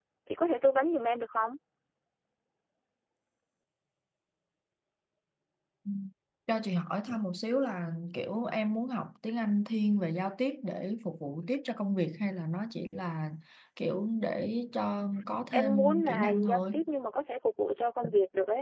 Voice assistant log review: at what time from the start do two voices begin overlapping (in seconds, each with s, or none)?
15.5 s